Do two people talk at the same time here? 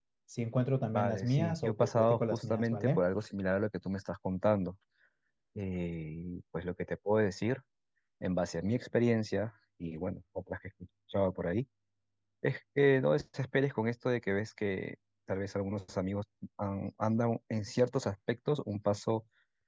Yes, from 0.9 s

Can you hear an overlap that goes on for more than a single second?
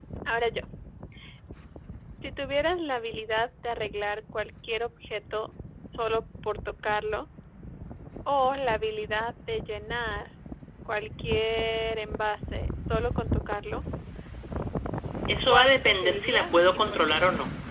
Yes, from 15.5 s

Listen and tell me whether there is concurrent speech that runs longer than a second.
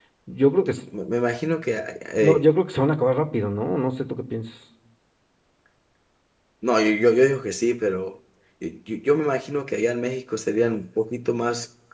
No

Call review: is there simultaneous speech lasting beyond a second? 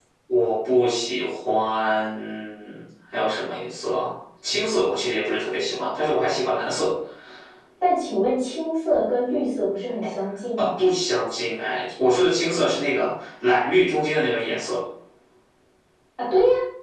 No

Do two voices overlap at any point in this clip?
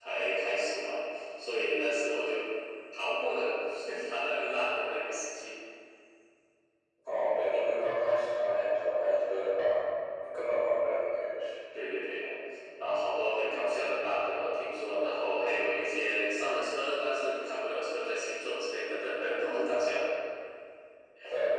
No

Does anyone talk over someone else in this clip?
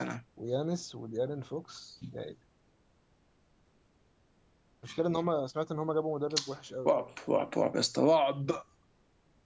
No

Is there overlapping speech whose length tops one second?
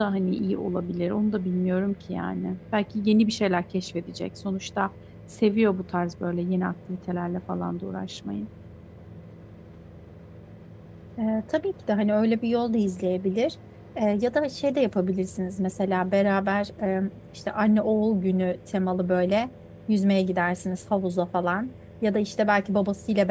No

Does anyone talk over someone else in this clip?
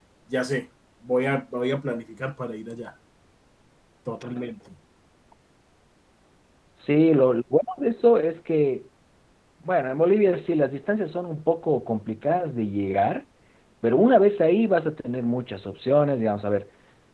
No

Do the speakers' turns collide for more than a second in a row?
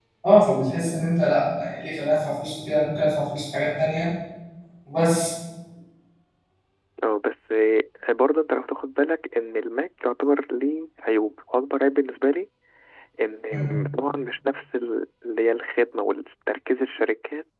No

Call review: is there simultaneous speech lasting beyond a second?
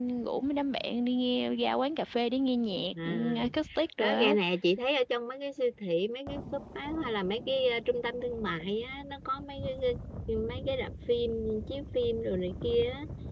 No

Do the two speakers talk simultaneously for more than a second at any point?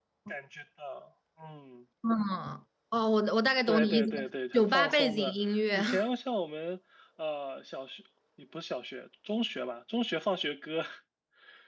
Yes, from 3.7 s

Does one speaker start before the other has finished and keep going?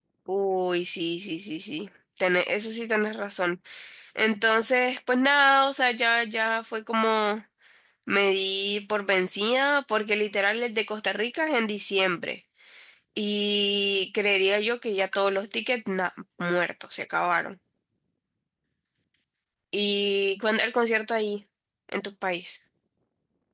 No

